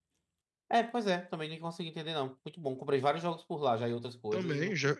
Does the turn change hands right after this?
Yes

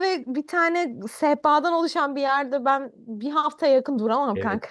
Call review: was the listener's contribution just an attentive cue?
No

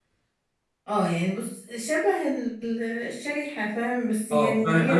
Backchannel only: No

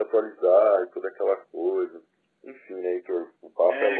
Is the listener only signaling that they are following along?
No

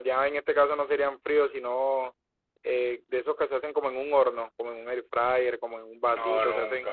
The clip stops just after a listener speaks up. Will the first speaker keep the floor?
Yes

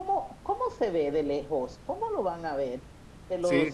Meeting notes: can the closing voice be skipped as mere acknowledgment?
Yes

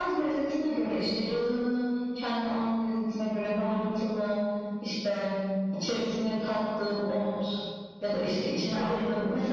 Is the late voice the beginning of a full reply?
No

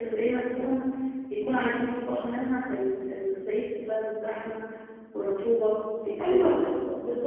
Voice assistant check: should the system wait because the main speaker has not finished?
No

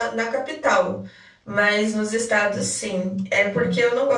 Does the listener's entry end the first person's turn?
No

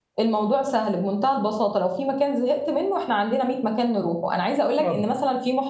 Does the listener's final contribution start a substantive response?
No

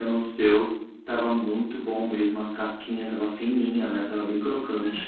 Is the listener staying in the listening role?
No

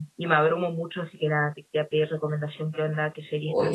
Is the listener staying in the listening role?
No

